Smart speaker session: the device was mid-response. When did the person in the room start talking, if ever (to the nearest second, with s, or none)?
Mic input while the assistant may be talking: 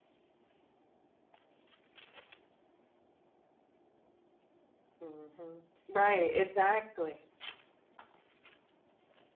5 s